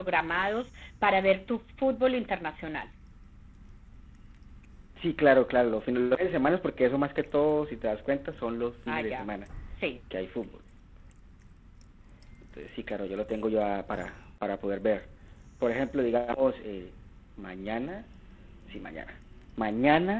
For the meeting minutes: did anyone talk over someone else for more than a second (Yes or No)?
No